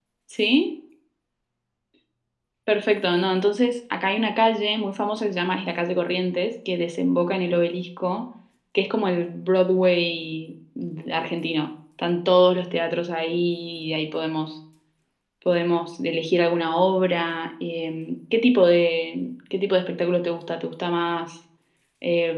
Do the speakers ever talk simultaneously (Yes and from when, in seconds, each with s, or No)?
No